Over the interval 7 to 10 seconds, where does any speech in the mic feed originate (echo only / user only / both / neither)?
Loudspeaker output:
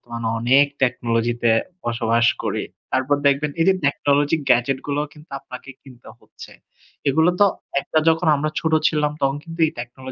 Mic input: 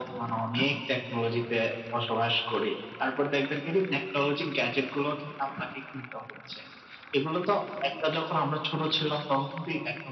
echo only